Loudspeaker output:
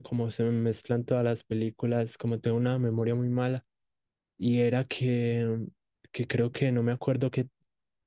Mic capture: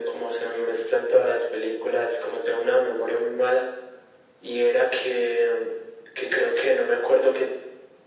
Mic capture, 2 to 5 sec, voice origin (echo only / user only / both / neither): echo only